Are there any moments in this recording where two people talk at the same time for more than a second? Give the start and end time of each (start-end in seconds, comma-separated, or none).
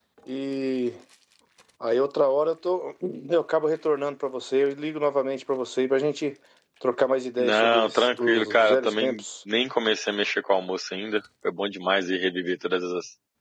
7.4-9.2